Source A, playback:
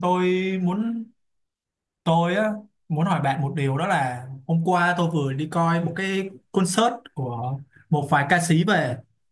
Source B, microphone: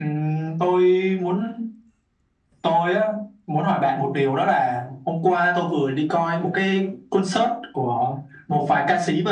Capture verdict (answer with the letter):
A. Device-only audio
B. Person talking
A